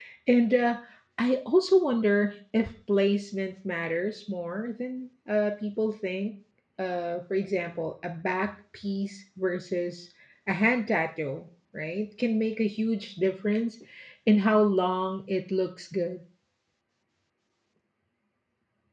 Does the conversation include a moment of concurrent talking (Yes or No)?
No